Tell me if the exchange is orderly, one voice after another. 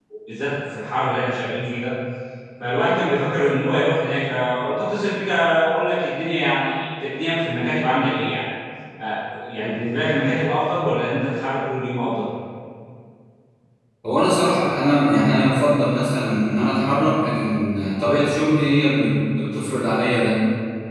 Yes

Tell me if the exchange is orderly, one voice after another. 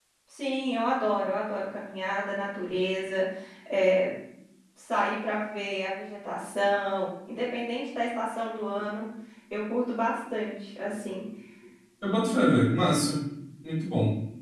Yes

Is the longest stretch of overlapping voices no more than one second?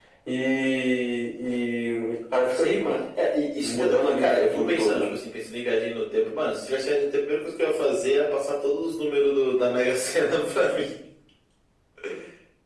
No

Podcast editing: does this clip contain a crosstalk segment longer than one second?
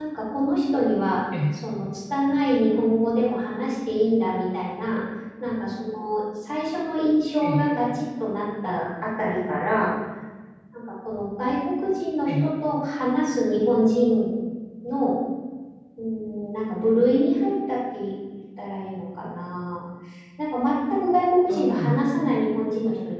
No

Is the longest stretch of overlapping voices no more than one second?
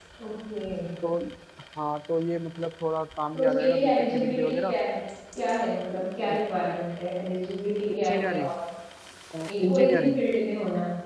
No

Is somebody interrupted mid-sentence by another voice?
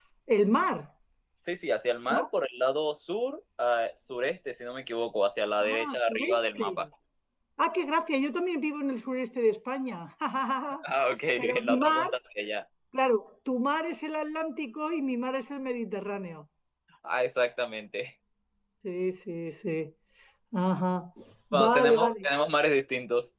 Yes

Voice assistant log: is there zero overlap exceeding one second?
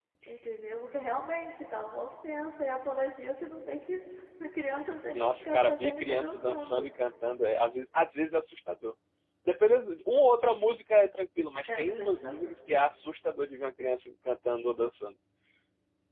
No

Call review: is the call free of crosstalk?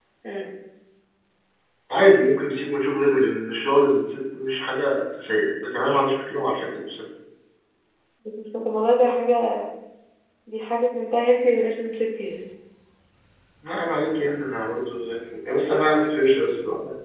Yes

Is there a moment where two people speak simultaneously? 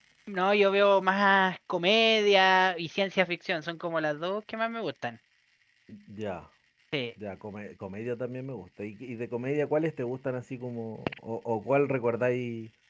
No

